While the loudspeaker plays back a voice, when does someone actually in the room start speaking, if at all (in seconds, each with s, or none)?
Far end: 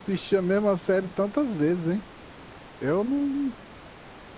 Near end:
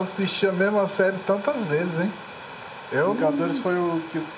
3.0 s